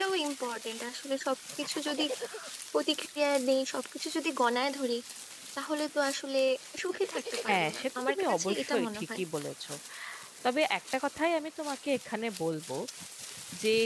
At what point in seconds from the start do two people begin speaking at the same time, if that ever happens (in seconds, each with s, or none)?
7.4 s